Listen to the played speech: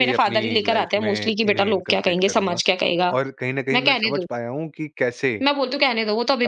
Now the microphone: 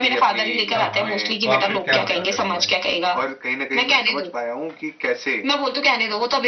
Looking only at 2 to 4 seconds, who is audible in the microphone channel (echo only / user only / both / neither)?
both